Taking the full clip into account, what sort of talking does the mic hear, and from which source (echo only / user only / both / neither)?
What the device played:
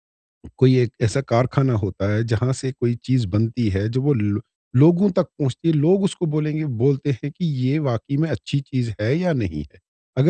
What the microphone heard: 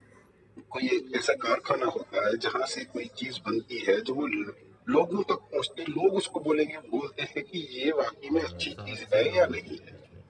both